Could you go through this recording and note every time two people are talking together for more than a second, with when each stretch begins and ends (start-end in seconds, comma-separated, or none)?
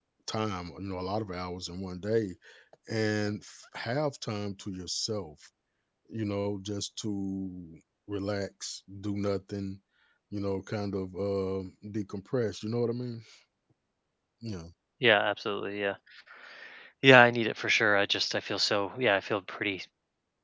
none